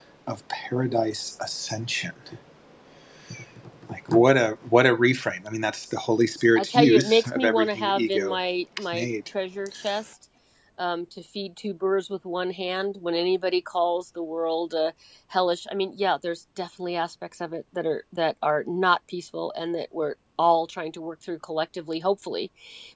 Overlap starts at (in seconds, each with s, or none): 6.6 s